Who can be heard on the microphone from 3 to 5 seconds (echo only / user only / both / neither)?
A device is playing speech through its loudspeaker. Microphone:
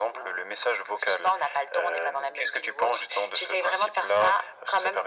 echo only